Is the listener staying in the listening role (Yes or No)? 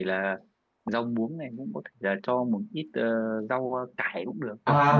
No